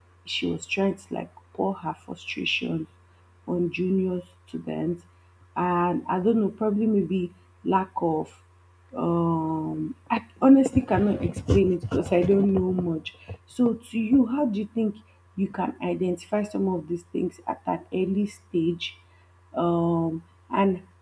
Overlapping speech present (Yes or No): No